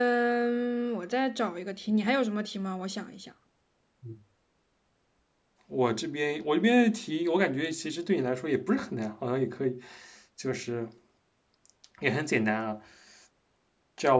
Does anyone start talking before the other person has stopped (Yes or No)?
No